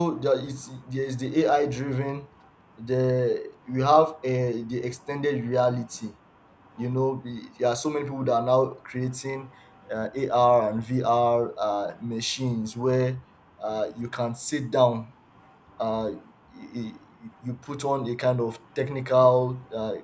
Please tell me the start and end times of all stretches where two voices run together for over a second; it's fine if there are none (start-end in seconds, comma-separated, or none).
none